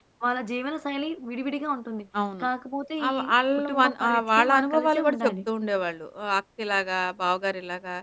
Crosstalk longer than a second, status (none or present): present